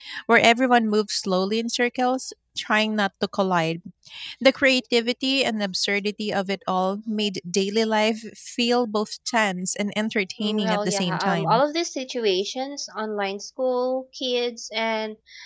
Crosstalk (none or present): present